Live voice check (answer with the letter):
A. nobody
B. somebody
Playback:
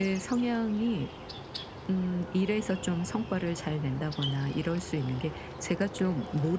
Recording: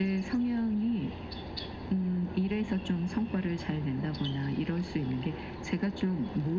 A